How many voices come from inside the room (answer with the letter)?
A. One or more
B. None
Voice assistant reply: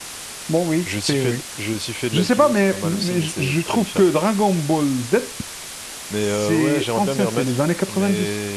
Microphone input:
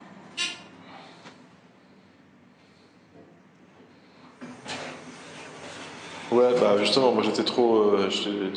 A